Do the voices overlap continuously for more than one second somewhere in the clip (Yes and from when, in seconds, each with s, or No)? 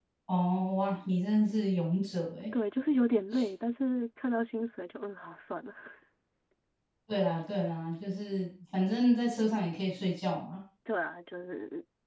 No